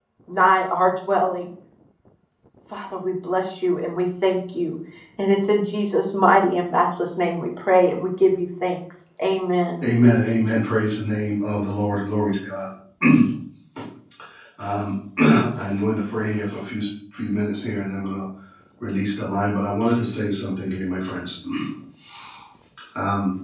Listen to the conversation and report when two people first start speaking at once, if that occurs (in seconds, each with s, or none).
none